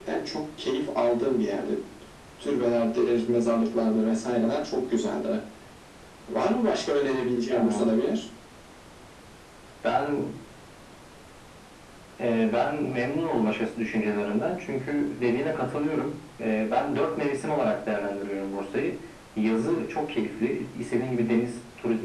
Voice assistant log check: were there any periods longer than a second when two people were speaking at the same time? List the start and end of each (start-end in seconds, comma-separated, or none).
none